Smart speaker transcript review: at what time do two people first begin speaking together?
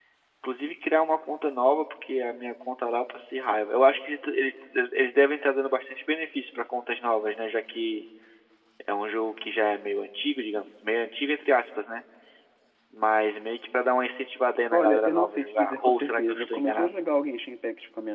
14.7 s

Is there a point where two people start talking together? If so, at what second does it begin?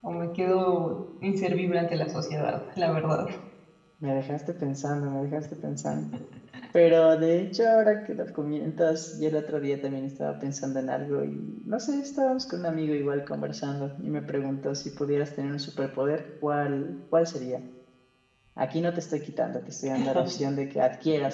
none

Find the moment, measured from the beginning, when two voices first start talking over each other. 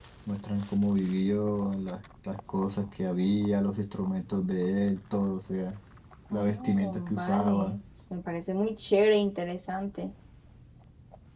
6.3 s

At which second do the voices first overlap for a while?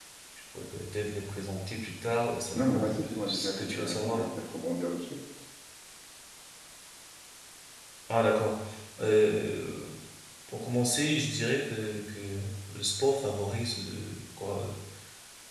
2.5 s

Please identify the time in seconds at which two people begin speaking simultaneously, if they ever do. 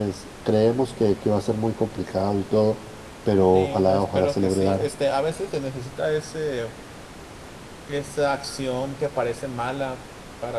3.5 s

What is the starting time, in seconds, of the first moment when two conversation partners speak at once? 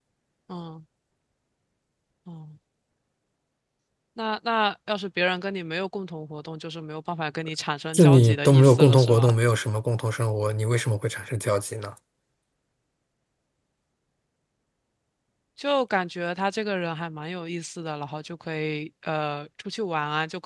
7.9 s

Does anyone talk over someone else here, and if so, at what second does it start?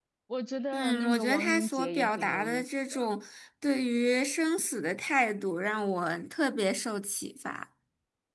0.7 s

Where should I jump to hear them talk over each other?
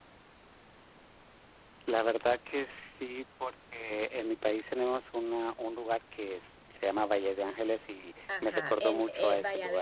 8.3 s

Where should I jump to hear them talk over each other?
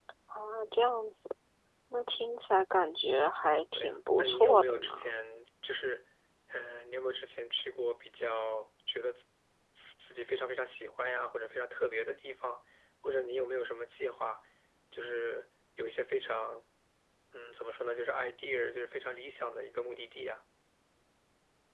3.8 s

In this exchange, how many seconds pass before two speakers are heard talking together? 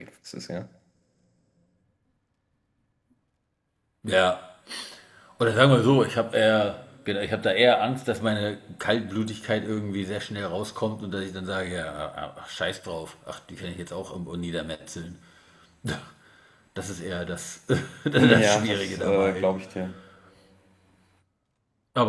18.2 s

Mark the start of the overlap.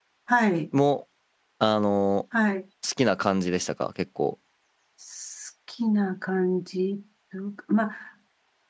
none

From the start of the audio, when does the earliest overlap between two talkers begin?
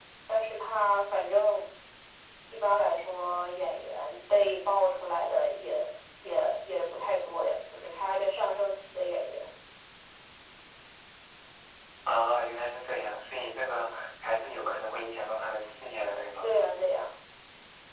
none

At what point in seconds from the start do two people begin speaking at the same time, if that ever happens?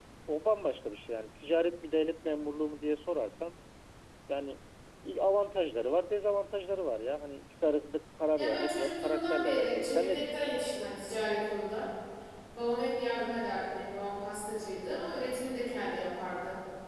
8.3 s

